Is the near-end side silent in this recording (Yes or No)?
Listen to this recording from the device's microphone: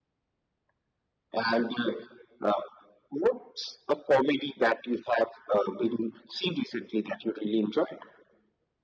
Yes